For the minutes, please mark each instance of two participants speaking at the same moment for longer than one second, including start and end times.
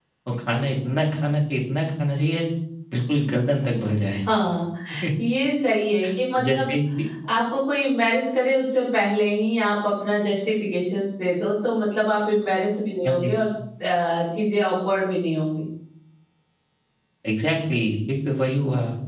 none

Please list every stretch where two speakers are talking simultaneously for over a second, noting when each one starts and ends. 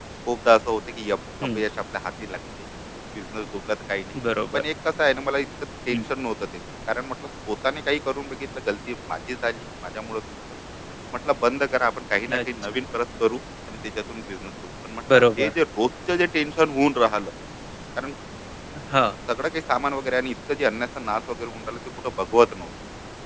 none

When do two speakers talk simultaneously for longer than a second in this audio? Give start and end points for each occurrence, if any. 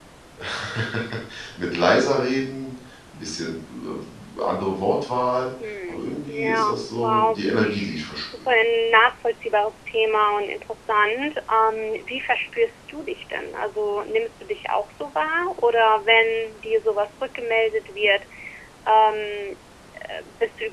5.9-7.4

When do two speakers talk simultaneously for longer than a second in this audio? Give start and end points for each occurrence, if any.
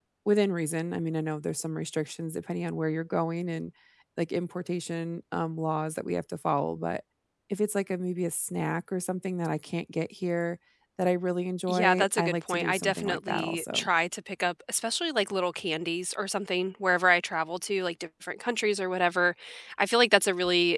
11.7-13.9

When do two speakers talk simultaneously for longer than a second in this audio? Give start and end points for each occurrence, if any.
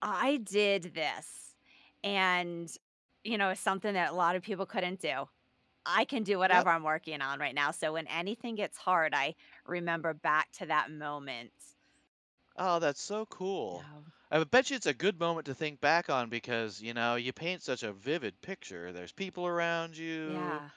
none

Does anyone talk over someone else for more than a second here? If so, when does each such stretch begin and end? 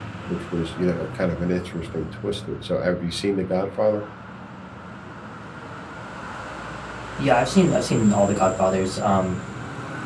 none

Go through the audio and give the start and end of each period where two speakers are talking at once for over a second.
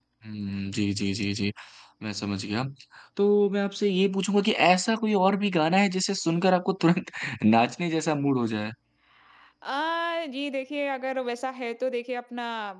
none

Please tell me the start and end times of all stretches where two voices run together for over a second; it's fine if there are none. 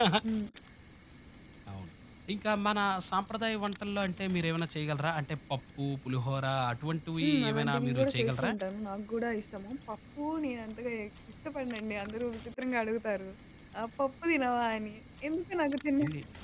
7.2-8.5

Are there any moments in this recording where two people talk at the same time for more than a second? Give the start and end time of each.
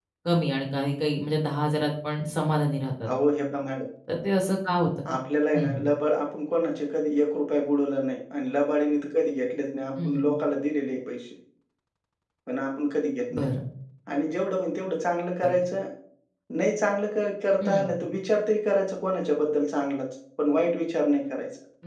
none

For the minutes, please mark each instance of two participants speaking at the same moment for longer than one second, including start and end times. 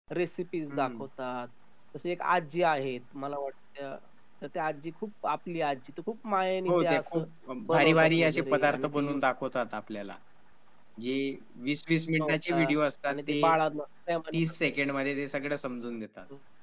7.7-9.2

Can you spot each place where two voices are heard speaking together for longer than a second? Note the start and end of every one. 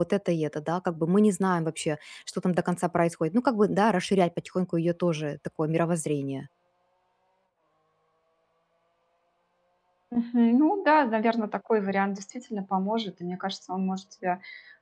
none

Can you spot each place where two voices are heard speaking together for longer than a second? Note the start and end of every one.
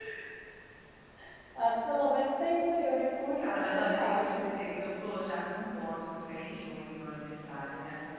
3.4-4.7

